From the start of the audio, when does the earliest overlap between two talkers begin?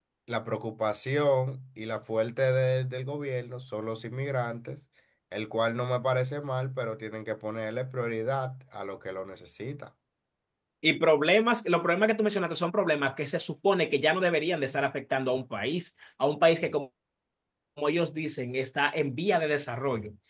none

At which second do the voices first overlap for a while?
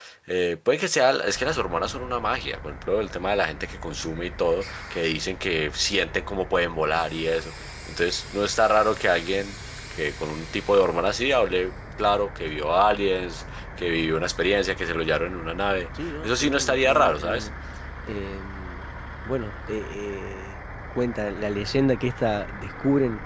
15.9 s

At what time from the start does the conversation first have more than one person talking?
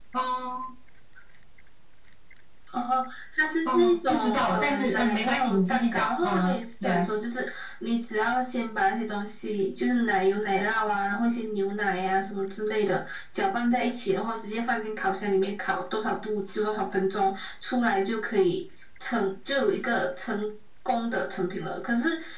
3.7 s

